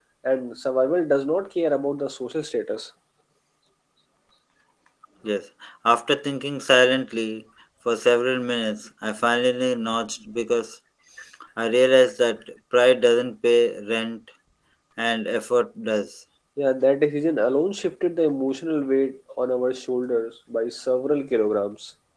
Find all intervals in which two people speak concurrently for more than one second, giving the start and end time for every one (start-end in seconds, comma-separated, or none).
none